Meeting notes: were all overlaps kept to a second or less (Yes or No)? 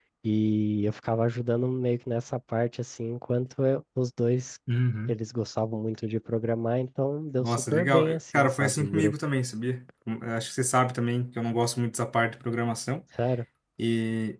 No